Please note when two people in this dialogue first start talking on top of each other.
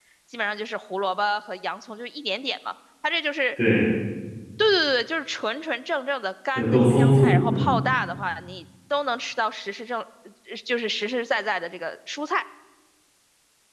6.6 s

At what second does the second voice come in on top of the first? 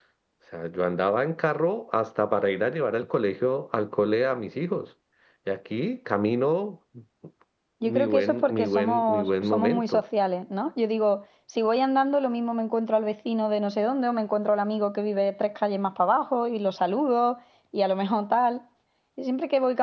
7.8 s

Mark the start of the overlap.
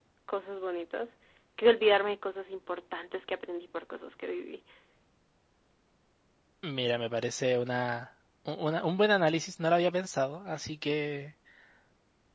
none

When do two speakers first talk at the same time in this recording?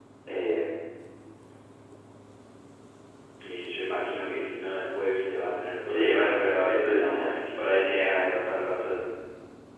5.8 s

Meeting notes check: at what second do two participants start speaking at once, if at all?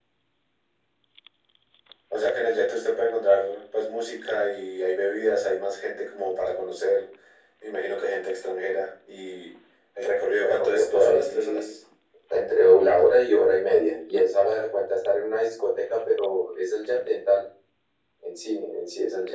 10.3 s

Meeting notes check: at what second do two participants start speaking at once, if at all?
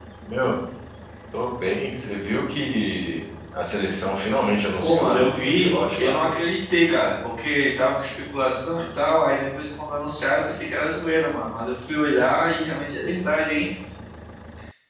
4.8 s

